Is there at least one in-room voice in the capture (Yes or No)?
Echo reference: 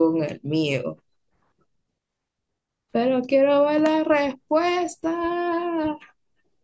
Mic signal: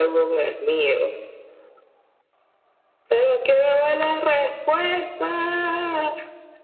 No